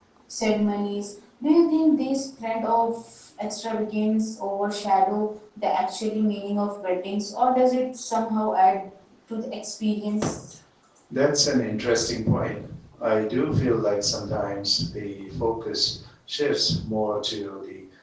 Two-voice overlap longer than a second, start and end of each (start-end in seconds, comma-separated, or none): none